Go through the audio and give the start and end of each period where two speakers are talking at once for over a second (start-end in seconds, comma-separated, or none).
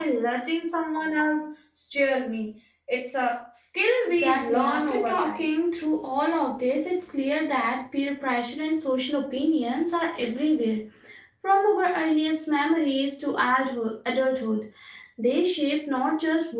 4.0-5.5